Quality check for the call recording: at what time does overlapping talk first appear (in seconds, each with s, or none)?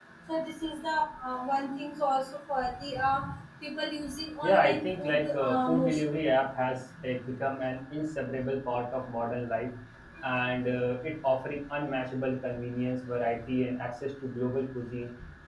4.4 s